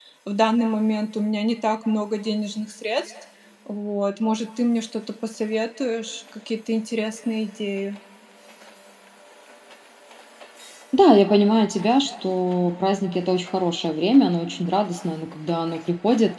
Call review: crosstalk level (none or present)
none